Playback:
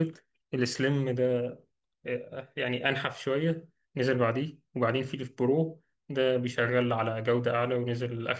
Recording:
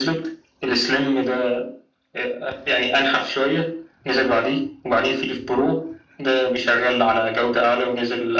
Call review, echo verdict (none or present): present